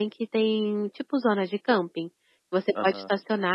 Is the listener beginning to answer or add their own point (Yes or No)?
No